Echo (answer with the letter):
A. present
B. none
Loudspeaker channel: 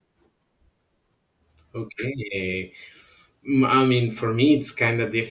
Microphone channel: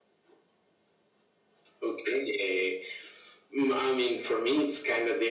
A